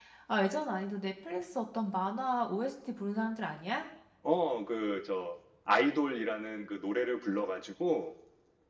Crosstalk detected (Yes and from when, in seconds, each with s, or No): No